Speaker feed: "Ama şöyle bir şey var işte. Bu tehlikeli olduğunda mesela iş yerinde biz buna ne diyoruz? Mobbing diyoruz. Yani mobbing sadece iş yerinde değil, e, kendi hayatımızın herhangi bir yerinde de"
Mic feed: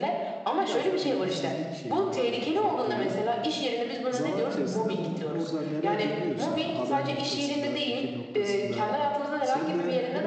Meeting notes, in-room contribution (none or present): present